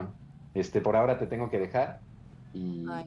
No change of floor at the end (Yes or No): Yes